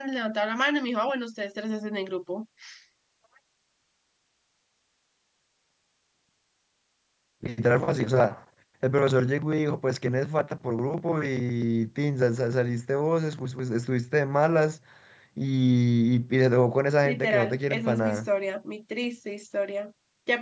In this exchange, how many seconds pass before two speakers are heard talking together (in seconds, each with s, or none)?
17.0 s